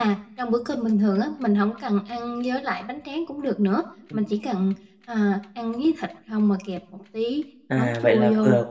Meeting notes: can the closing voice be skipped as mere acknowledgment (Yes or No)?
No